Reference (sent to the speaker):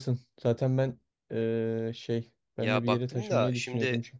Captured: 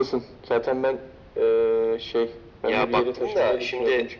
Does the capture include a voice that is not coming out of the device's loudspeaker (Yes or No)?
No